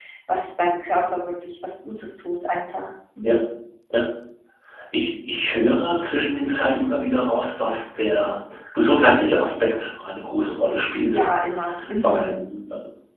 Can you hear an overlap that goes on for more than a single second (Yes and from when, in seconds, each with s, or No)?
No